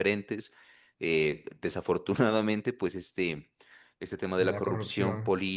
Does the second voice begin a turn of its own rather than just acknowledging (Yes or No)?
No